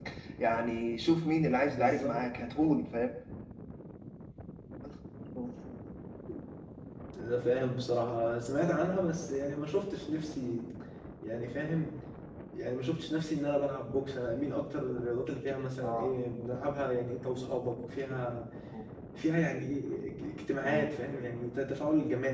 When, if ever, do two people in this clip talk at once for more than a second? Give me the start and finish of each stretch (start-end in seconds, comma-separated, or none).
none